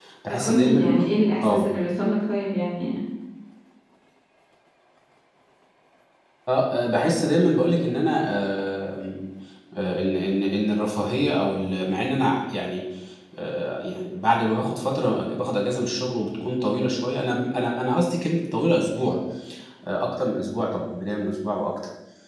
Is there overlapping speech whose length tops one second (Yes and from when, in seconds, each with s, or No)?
No